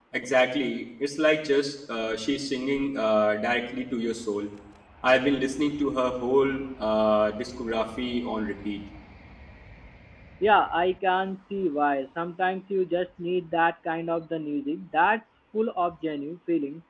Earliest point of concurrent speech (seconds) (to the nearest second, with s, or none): none